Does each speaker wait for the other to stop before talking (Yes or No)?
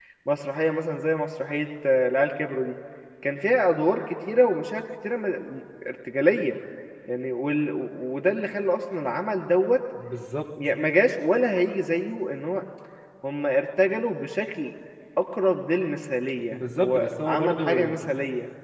No